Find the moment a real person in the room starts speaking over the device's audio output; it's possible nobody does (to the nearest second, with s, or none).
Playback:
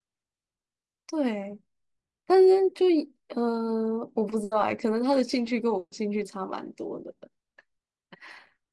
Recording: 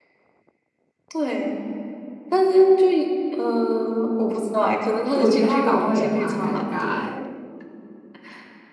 5 s